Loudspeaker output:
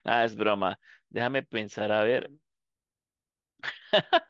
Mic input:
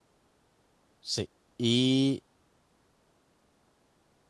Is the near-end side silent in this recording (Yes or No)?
No